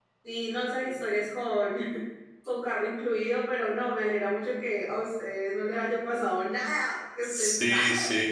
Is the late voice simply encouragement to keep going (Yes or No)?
No